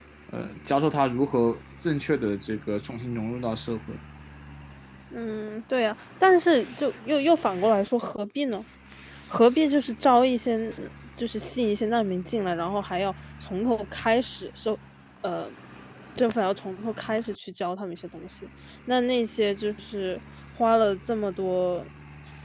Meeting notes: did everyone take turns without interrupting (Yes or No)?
Yes